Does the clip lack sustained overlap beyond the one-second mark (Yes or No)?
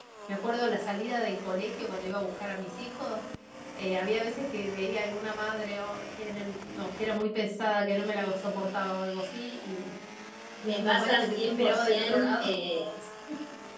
No